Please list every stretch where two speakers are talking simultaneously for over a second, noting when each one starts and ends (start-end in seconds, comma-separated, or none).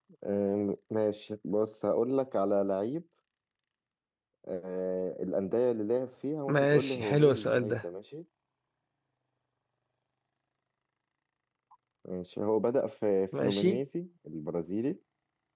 6.5-7.8